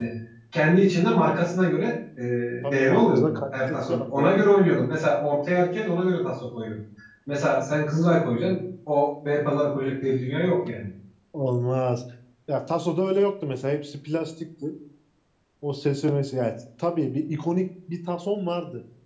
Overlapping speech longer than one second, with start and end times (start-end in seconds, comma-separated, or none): 2.7-4.3